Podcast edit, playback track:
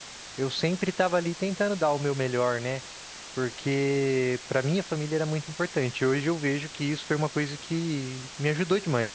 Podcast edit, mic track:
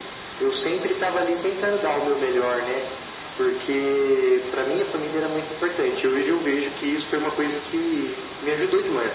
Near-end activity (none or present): none